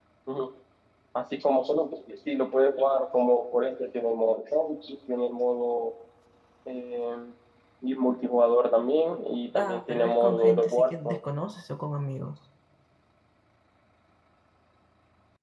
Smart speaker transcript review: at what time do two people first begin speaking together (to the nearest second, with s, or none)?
10 s